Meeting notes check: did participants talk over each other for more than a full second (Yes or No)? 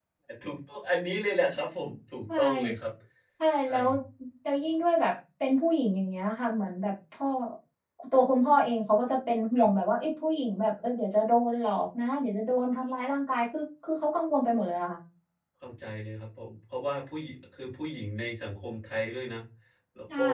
No